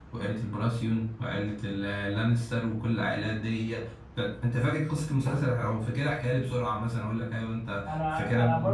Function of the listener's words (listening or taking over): taking over